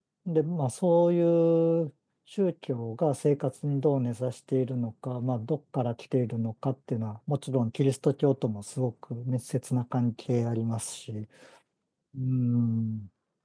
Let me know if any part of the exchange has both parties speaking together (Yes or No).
No